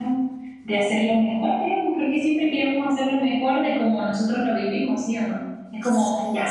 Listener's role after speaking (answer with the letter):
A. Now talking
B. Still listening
B